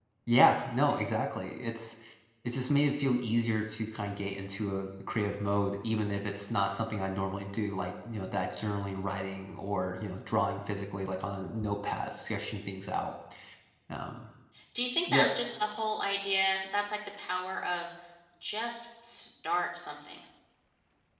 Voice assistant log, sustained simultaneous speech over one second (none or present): none